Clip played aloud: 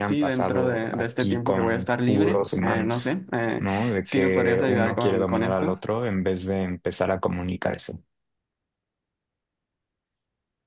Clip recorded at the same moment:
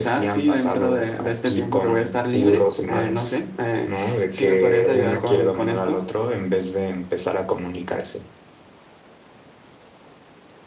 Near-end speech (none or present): none